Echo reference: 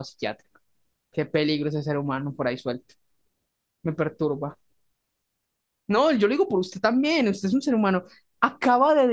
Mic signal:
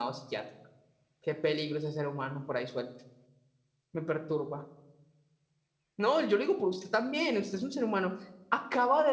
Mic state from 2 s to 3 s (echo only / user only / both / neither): echo only